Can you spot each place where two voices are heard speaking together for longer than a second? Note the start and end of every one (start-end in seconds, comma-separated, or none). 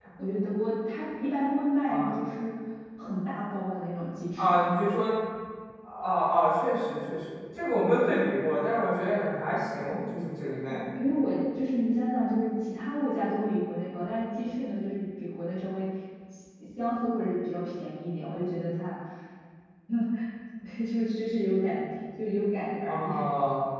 none